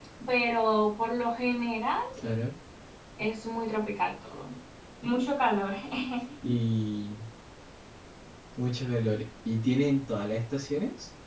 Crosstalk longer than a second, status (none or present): none